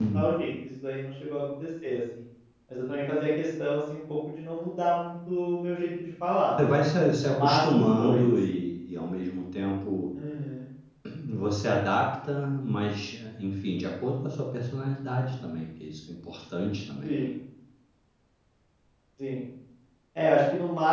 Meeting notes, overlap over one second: present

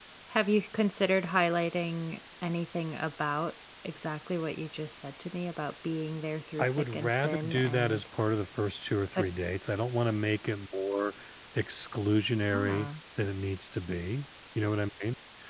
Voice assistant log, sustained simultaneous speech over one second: present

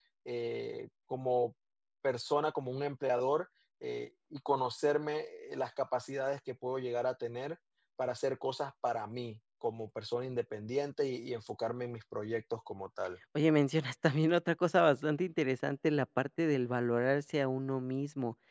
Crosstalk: none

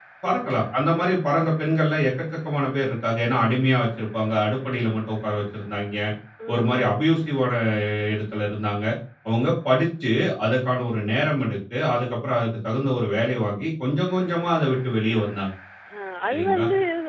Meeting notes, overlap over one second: none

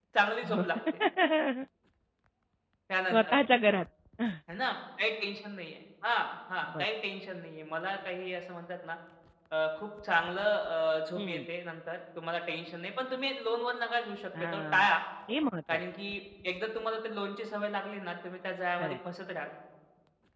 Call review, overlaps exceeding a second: none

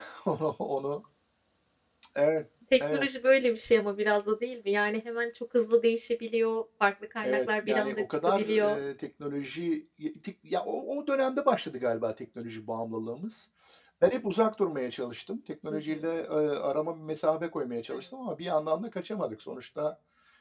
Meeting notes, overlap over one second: present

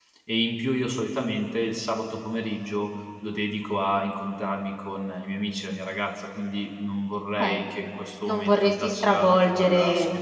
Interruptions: present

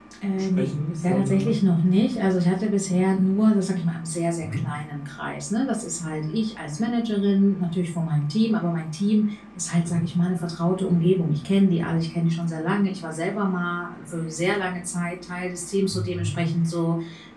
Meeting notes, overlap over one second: present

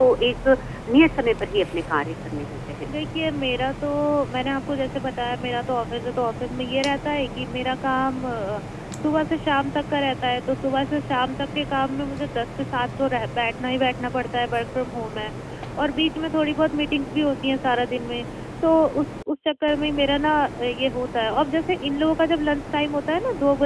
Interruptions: none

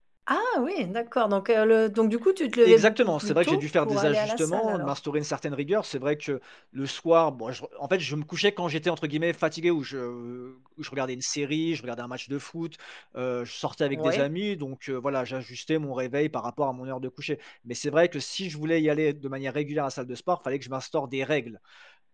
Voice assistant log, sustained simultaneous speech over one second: present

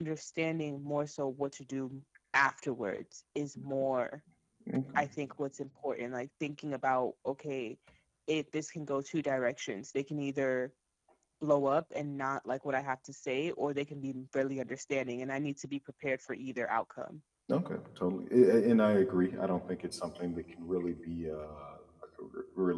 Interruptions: none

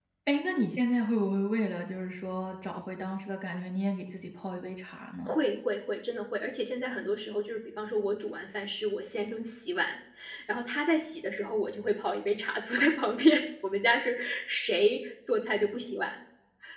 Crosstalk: none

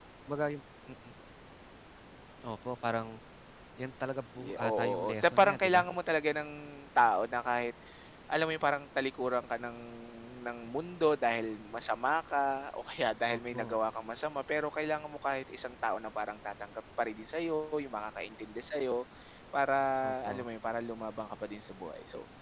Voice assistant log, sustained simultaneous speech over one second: present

